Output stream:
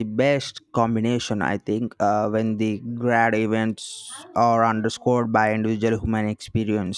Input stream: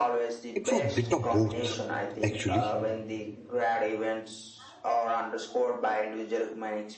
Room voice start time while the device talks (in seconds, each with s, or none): 0.6 s